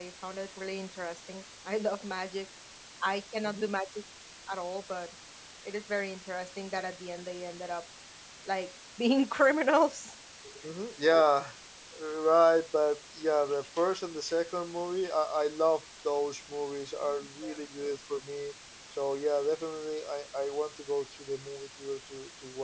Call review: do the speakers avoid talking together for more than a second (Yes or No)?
Yes